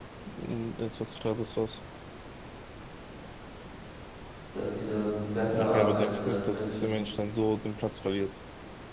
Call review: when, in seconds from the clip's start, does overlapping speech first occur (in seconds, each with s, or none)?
5.5 s